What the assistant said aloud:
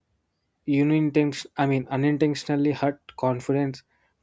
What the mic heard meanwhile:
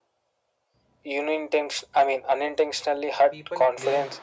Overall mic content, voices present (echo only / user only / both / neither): both